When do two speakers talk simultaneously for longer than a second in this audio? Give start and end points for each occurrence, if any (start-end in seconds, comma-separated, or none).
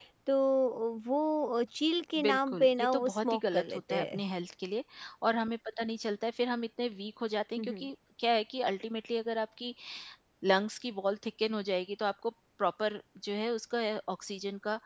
2.2-4.2